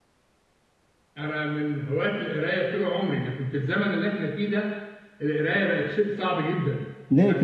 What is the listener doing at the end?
listening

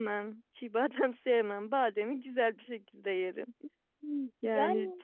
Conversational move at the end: listening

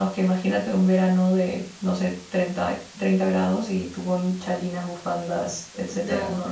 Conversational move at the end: taking over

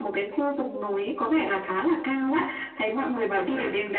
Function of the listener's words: listening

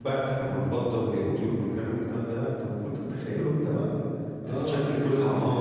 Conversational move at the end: taking over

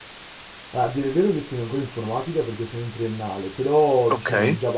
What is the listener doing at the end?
listening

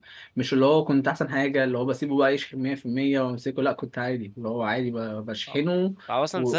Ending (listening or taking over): taking over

